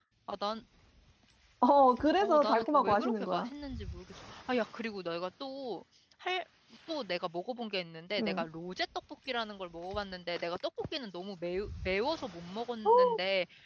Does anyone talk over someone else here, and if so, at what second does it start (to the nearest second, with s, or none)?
2 s